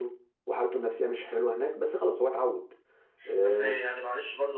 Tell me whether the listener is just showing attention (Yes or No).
No